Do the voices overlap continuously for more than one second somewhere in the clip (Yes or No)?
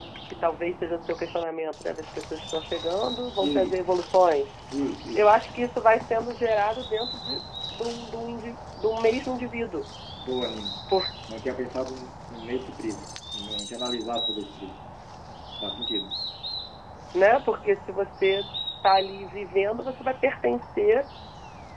No